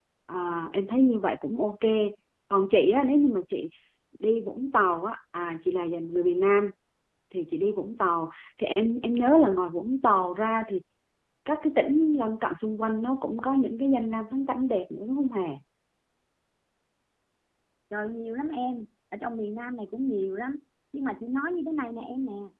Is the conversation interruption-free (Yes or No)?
Yes